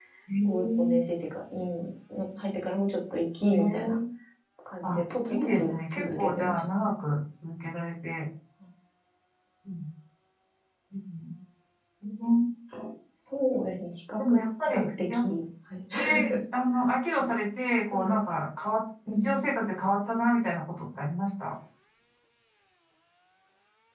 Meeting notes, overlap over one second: present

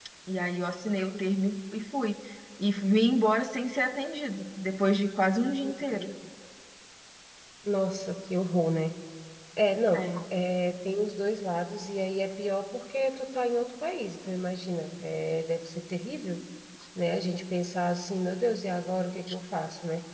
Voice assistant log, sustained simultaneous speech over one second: none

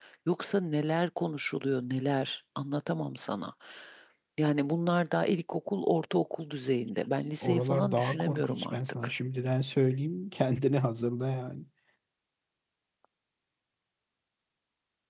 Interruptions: present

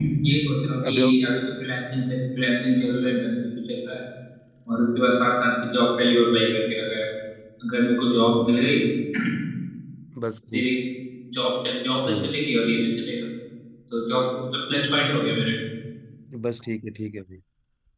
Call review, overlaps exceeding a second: none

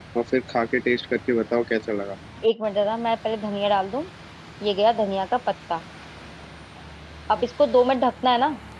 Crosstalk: none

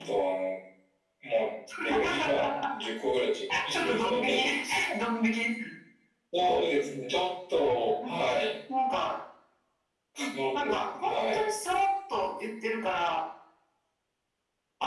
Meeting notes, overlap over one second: present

